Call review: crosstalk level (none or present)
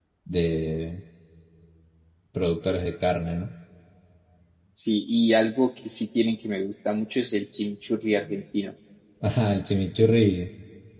none